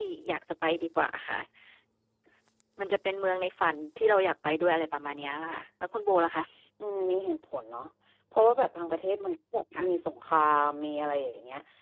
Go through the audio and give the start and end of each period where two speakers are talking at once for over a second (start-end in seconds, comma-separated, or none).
none